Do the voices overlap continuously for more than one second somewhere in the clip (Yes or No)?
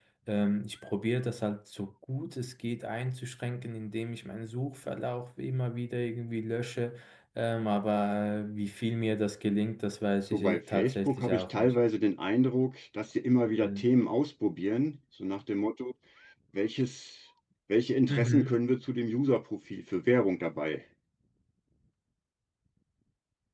Yes